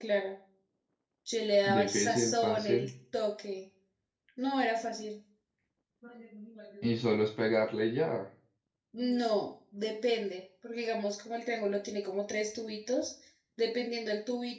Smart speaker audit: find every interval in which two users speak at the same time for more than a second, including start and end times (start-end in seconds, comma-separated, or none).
1.6-2.9